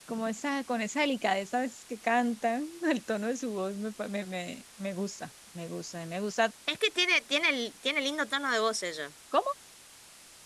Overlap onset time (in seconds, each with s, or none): none